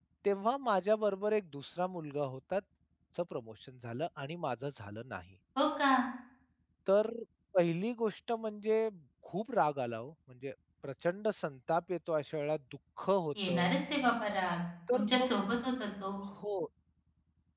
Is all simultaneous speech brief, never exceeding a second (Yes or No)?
Yes